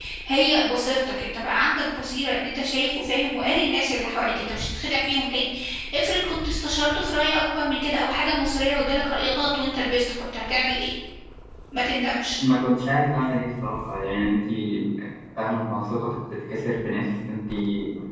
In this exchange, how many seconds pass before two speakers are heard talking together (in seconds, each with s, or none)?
none